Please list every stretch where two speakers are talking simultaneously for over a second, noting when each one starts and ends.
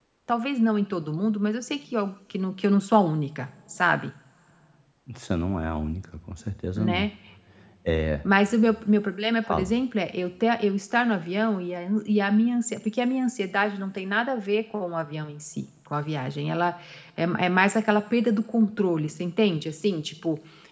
none

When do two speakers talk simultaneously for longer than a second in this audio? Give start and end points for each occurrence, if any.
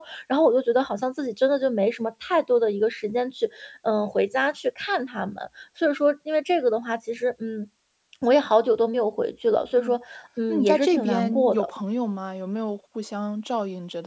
10.5-11.7

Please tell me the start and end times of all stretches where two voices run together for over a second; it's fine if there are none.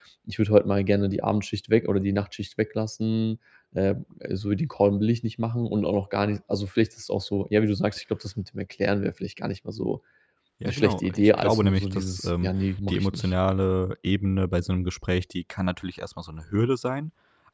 10.6-12.5

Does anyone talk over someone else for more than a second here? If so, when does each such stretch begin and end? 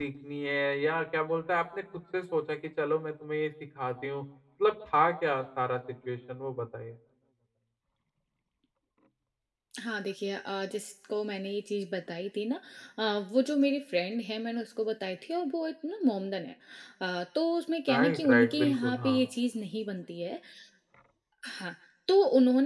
17.9-19.2

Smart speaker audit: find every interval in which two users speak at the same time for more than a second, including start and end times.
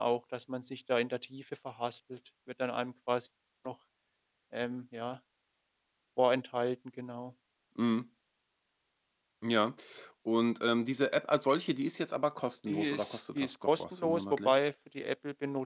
12.7-14.5

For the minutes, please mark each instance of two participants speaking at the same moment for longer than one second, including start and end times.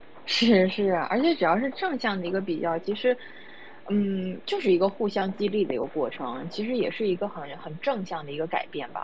none

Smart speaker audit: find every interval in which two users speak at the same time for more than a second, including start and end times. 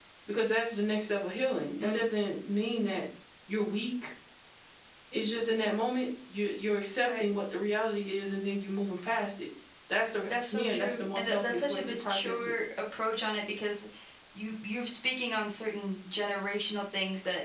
10.3-12.5

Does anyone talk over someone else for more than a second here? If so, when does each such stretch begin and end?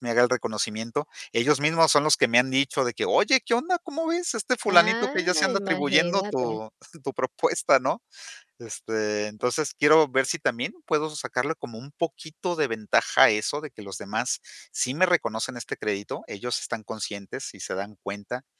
4.7-6.5

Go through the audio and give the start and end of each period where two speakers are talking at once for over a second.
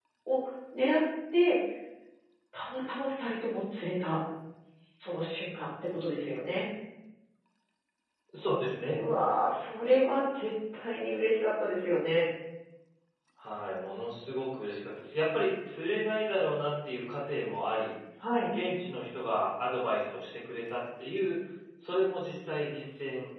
none

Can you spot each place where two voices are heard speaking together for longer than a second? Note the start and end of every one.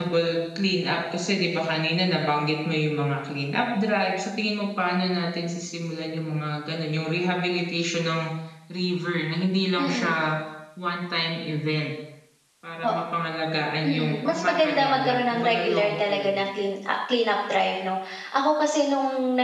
13.8-16.4

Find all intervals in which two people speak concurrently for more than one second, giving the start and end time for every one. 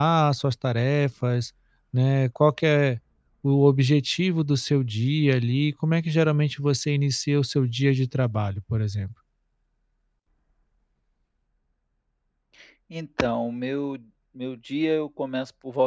none

